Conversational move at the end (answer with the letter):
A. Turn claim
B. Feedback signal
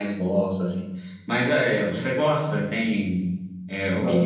A